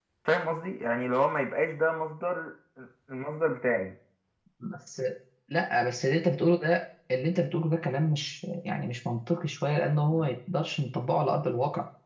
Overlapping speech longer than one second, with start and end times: none

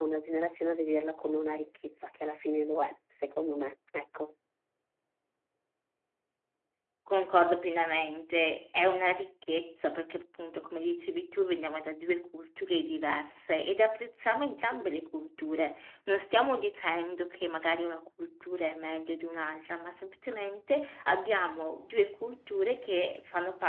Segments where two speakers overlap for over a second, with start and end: none

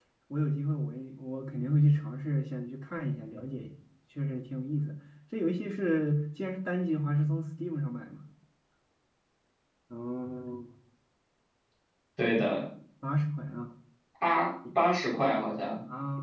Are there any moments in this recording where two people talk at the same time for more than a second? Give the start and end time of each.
none

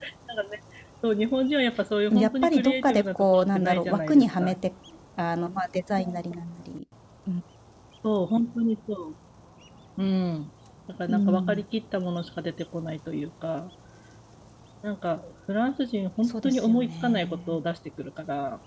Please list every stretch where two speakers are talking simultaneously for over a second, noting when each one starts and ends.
2.1-4.5, 16.3-17.6

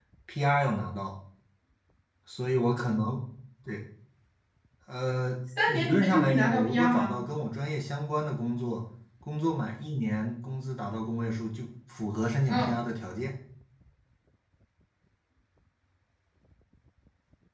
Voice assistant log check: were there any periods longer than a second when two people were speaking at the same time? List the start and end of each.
5.7-7.2

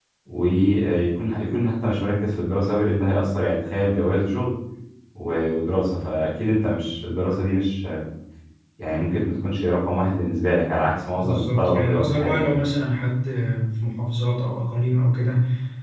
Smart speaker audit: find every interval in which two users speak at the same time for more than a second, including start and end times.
11.1-12.5

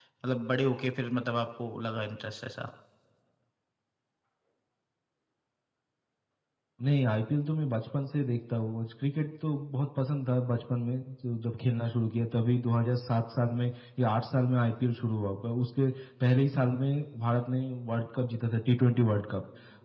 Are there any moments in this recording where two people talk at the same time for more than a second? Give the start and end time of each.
none

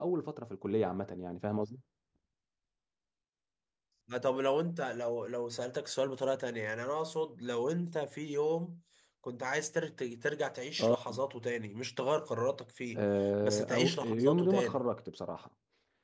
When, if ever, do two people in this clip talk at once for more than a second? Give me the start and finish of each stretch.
13.4-14.8

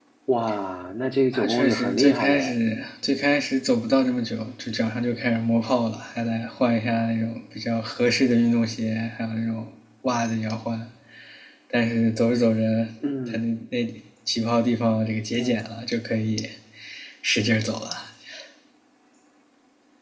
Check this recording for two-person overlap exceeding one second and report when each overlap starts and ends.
1.3-2.5

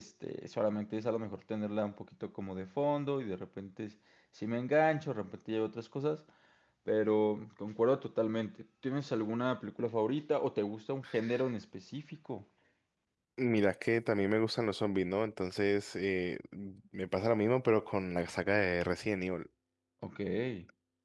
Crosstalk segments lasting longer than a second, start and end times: none

